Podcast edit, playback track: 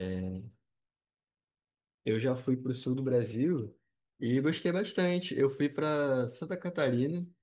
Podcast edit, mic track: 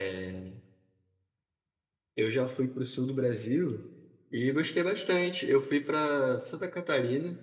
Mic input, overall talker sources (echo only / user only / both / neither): echo only